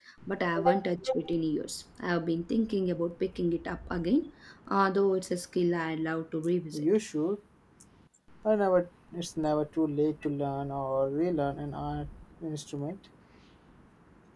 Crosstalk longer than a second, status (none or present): none